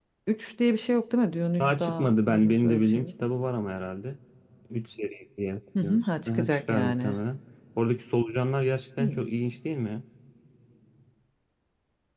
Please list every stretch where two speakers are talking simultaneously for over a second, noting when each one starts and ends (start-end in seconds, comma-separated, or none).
1.6-3.2, 5.8-7.2